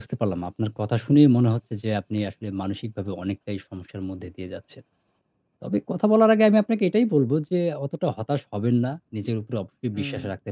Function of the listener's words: listening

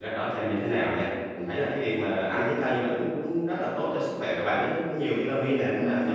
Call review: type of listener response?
listening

